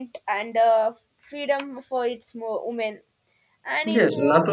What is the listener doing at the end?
taking over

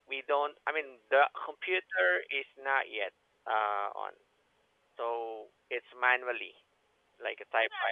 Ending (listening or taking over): taking over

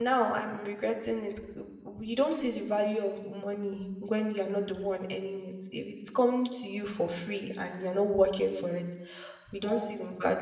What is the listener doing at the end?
listening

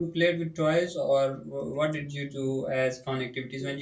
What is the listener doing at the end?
listening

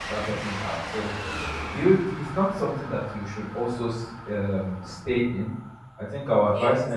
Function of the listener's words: listening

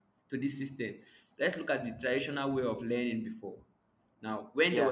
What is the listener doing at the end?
listening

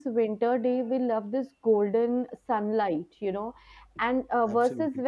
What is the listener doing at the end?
listening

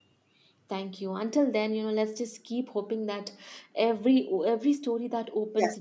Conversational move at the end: listening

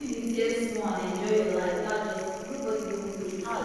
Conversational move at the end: listening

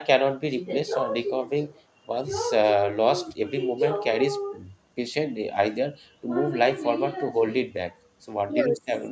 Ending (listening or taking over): taking over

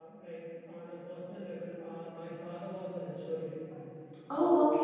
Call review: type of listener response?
listening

